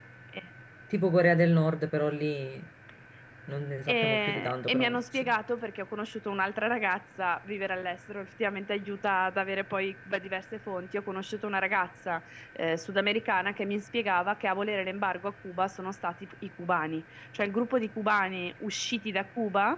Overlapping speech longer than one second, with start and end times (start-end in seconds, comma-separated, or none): 3.9-5.3